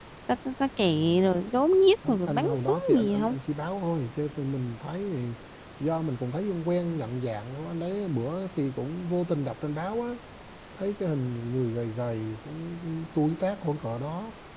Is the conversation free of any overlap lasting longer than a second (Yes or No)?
No